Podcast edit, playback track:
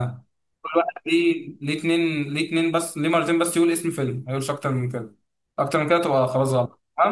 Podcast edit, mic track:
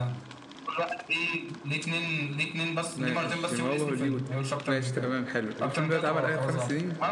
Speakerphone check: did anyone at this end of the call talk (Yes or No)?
Yes